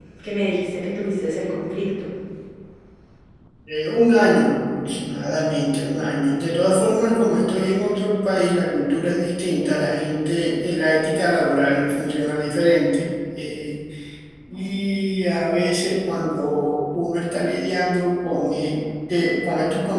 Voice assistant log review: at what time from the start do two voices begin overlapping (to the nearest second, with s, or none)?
none